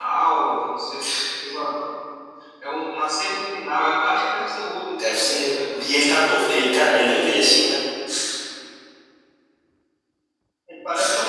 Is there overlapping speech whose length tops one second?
Yes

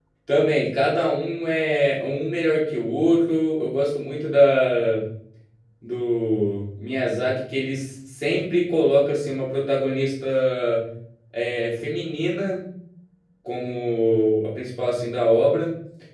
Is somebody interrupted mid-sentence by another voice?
No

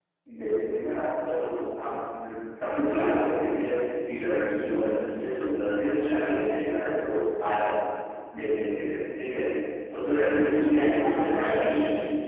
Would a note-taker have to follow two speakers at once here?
Yes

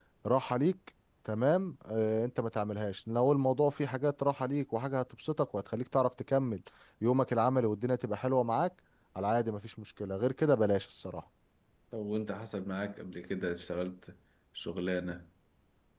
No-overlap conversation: Yes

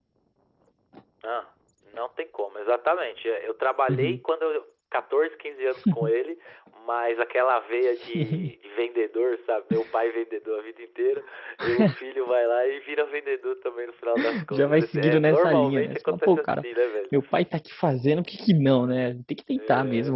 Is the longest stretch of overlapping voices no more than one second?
No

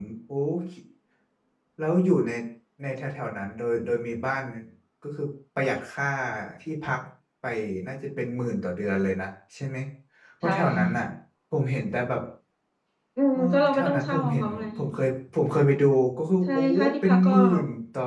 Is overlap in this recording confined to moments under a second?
No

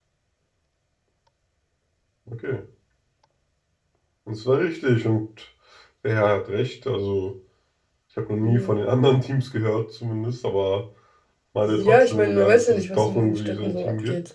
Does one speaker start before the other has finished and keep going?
Yes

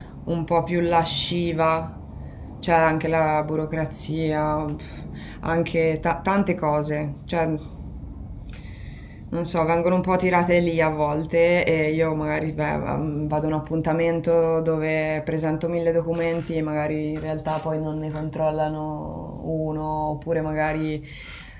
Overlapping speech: No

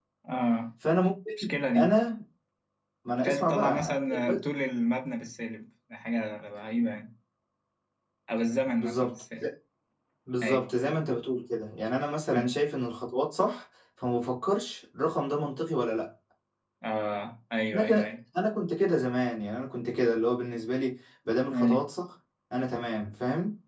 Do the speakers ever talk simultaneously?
Yes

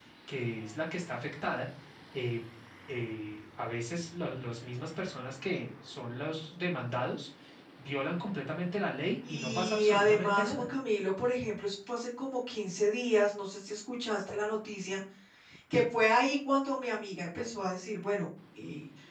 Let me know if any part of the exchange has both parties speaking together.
Yes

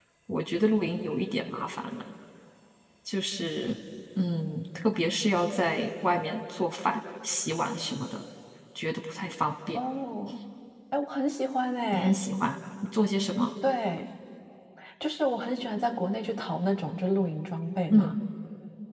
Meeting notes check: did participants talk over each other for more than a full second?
No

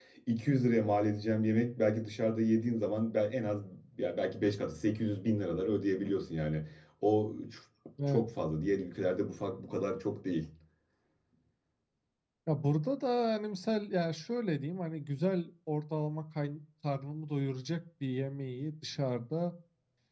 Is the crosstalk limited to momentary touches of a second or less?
Yes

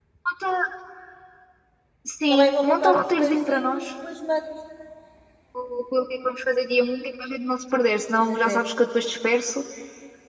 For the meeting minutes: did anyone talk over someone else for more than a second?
Yes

